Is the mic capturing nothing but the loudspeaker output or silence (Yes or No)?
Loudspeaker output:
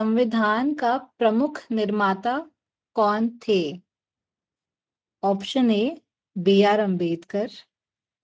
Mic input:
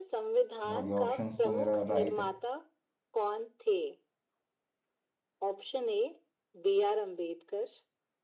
No